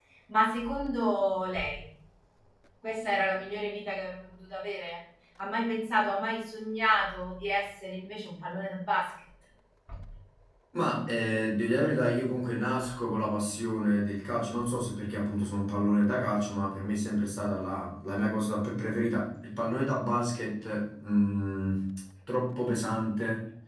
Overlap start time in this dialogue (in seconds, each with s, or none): none